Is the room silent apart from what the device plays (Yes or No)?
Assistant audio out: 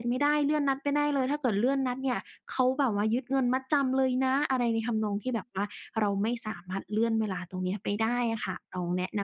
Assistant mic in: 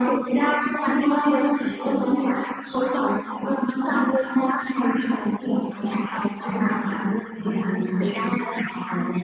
Yes